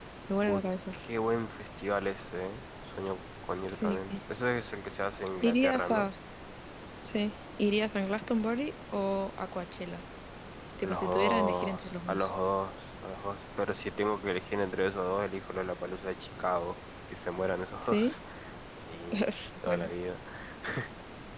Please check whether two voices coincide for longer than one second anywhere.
Yes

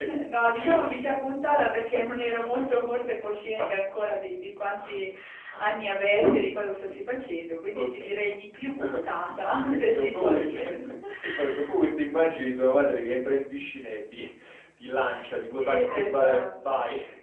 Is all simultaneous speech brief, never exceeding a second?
No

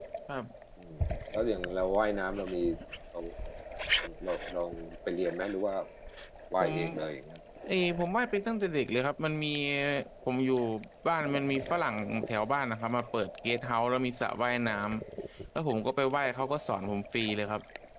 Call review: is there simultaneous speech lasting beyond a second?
No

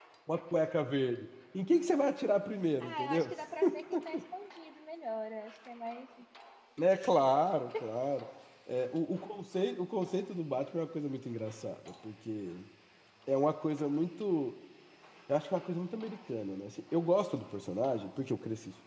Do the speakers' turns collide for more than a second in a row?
No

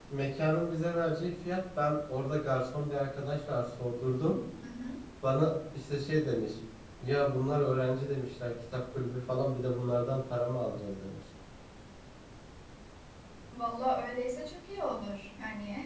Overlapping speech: No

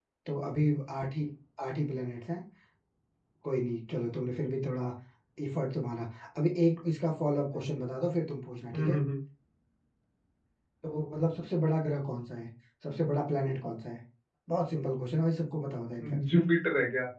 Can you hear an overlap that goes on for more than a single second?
No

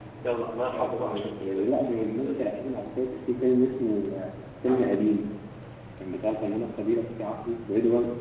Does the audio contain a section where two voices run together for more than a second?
Yes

